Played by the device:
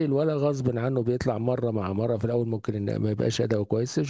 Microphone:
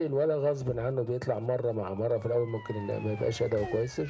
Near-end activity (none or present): none